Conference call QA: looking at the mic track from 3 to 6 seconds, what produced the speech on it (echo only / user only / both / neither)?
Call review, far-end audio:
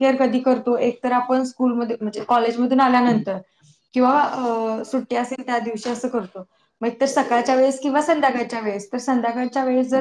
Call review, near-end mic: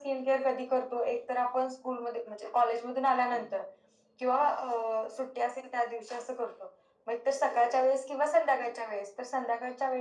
echo only